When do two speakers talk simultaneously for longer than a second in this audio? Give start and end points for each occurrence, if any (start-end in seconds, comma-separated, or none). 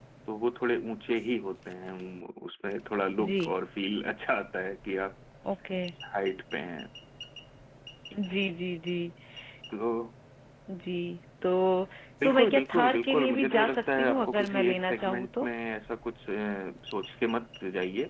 12.2-15.5